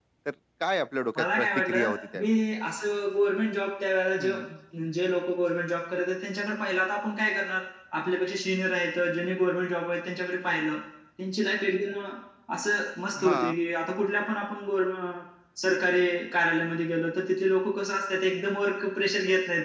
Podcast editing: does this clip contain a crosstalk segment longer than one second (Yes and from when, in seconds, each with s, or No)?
Yes, from 1.2 s